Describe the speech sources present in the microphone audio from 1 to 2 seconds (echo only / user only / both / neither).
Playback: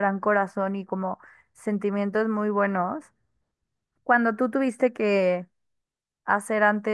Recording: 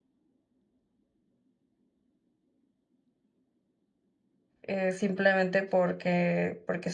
neither